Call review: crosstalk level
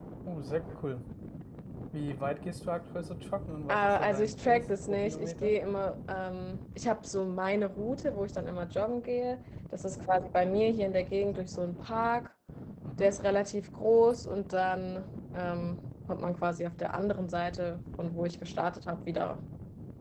present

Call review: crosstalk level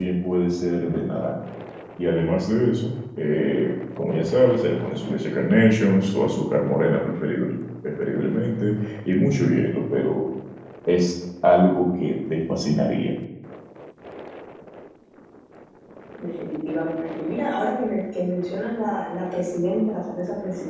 none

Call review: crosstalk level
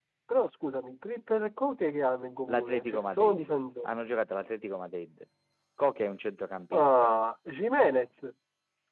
present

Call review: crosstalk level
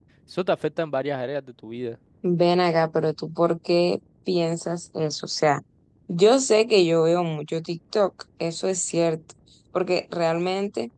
none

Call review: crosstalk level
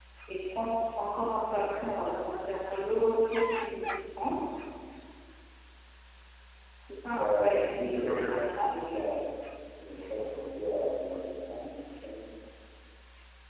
present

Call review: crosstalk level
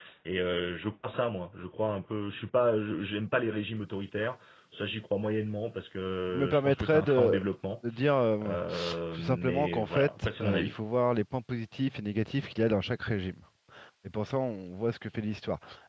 present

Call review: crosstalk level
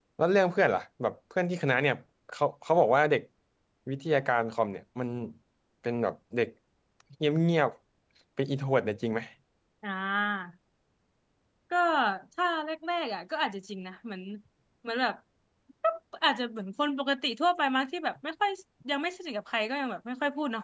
none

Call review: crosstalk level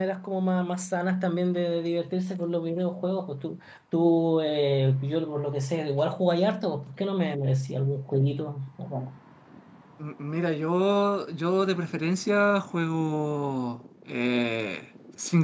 none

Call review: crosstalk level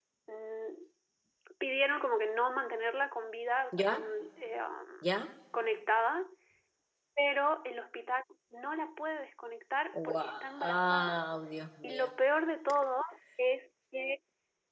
present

